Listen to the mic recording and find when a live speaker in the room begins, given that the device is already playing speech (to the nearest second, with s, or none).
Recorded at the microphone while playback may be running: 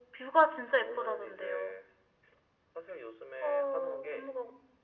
none